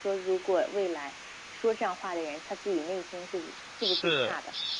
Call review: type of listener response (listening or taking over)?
taking over